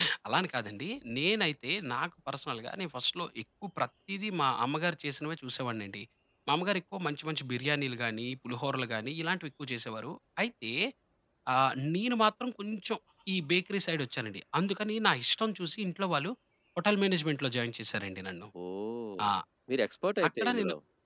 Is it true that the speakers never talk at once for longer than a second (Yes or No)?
Yes